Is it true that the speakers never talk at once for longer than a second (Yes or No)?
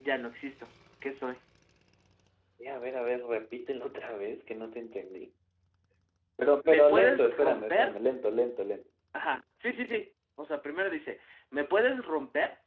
No